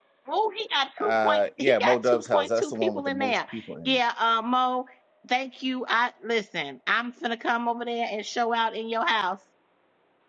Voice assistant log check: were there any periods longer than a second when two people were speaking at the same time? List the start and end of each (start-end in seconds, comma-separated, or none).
1.0-3.4